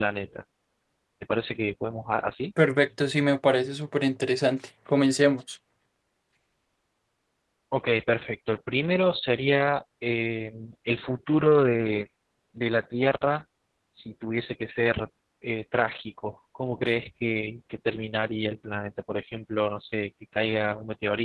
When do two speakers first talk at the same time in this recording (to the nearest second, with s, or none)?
none